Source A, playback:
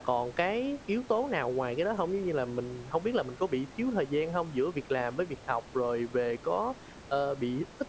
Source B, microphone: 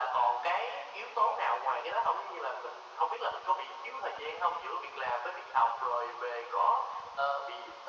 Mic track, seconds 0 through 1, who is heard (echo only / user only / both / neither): echo only